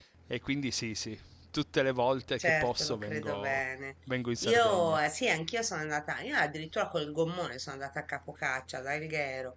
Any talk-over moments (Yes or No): Yes